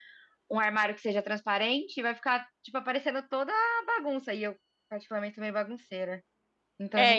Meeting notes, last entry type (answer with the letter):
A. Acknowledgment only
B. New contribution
B